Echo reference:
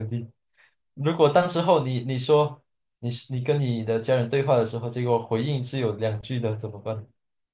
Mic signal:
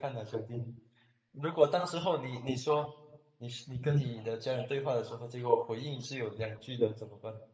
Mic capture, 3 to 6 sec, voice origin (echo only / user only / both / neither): echo only